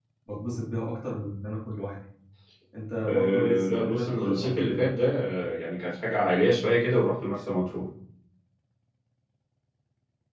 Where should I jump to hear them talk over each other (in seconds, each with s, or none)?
3.1 s